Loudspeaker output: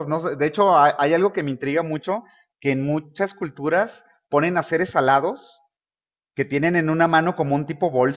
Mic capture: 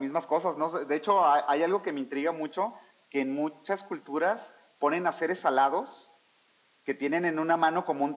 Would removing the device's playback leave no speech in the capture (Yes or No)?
Yes